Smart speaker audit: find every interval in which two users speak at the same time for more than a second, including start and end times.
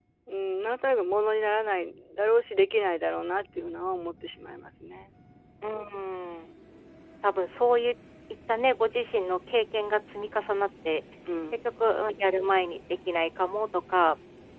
none

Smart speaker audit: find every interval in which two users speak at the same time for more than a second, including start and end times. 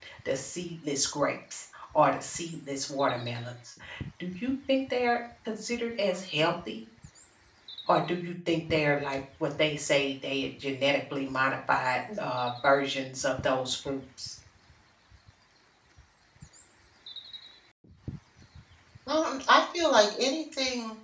none

